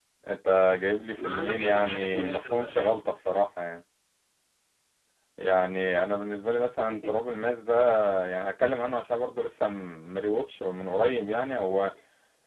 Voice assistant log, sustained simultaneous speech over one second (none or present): present